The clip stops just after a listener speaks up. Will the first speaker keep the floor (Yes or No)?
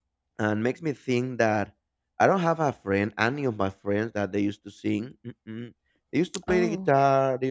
Yes